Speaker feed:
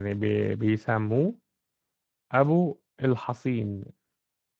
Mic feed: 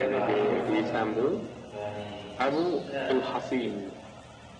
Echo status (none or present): present